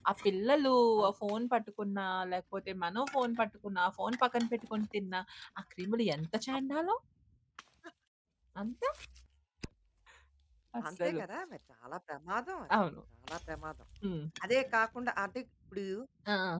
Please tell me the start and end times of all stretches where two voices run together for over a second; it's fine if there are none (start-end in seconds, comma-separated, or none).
none